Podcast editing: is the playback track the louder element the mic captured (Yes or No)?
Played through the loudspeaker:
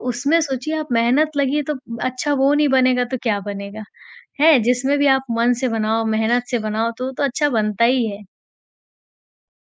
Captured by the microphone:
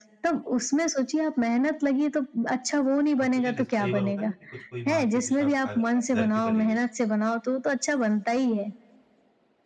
Yes